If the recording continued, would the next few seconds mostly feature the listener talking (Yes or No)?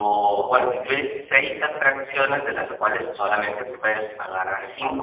Yes